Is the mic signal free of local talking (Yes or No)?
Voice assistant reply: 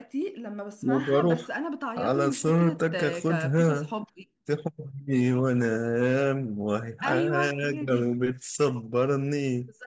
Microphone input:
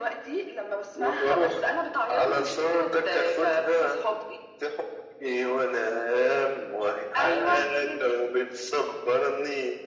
Yes